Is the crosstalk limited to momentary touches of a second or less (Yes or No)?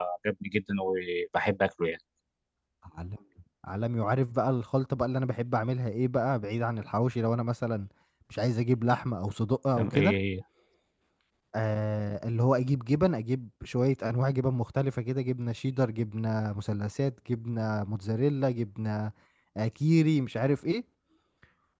Yes